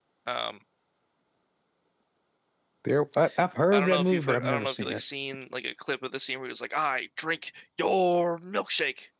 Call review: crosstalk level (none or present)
present